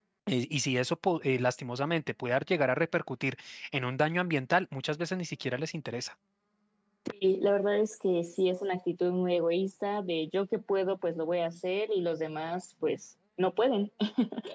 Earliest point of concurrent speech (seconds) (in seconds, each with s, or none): none